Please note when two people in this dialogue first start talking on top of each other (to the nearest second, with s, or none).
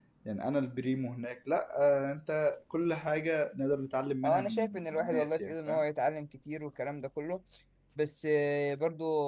4 s